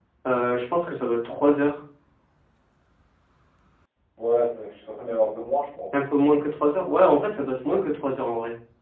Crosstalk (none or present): none